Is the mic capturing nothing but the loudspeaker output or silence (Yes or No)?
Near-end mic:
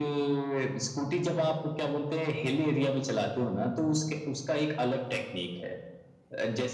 Yes